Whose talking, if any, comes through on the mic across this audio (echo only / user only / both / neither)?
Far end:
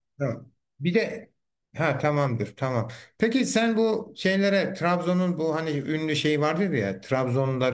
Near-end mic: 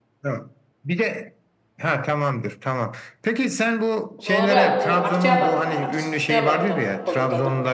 both